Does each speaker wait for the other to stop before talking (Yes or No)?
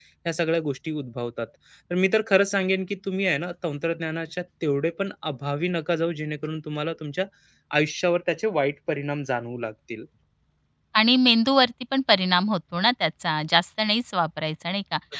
Yes